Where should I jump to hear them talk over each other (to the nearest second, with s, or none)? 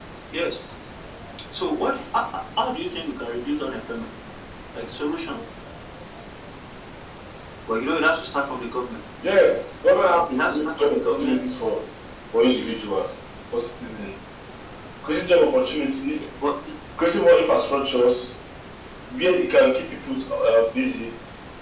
10 s